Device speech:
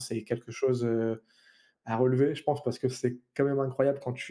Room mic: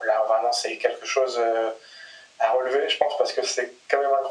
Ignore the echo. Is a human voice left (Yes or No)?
No